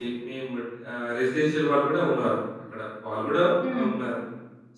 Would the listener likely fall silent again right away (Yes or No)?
Yes